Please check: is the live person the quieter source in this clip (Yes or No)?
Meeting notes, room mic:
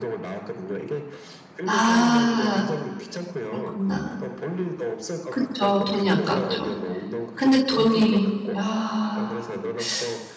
No